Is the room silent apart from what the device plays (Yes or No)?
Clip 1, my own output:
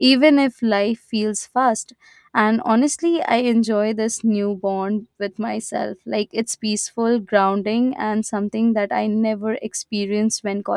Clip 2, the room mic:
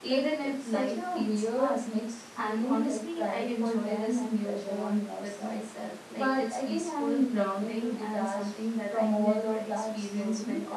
No